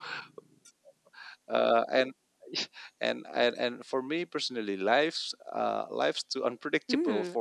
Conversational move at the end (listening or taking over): taking over